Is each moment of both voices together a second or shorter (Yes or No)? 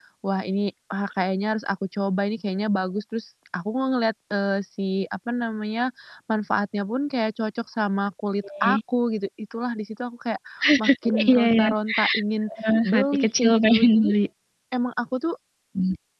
No